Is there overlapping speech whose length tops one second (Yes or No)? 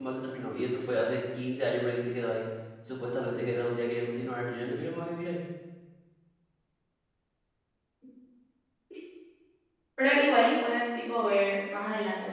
No